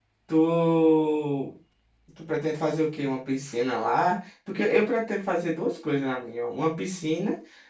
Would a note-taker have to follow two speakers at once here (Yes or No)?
No